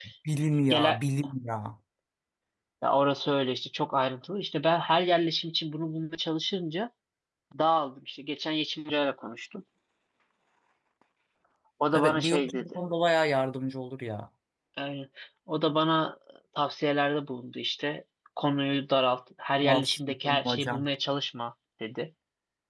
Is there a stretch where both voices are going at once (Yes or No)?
Yes